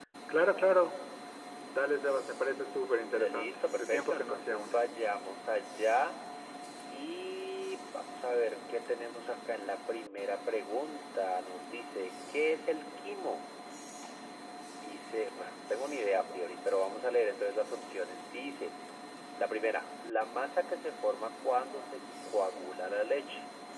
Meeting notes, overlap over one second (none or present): present